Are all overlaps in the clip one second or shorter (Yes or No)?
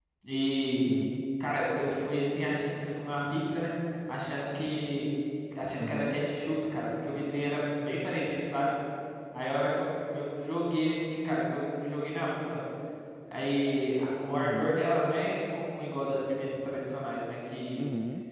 Yes